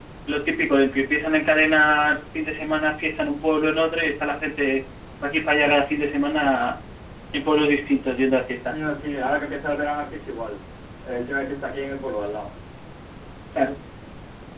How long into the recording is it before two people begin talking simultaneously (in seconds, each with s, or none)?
none